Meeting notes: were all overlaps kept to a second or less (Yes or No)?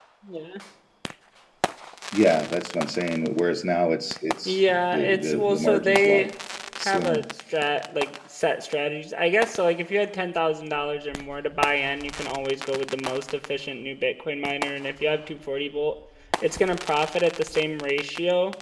No